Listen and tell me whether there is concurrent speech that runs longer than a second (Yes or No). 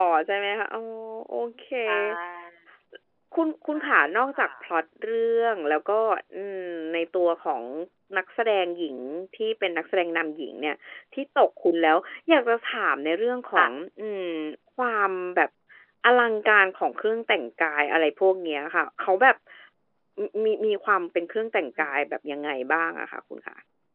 No